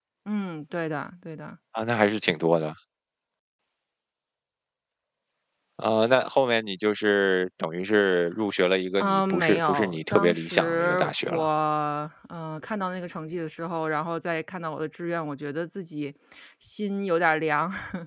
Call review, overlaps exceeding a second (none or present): present